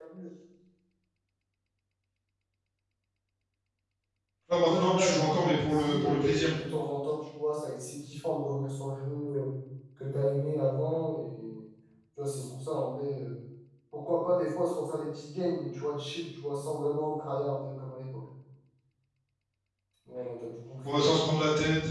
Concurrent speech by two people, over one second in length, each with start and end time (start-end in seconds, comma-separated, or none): 4.6-6.5